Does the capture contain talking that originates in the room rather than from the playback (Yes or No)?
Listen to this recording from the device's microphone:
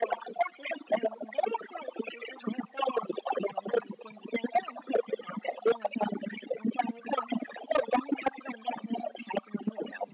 No